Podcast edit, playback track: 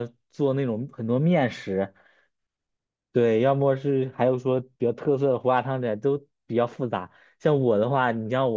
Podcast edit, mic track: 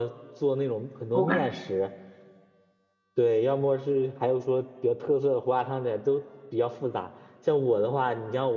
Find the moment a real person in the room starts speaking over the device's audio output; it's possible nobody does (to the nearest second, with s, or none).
1 s